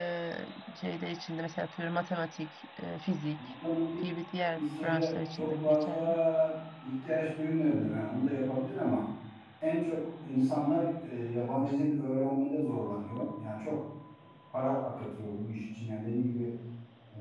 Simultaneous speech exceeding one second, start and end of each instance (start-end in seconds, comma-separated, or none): 4.6-6.2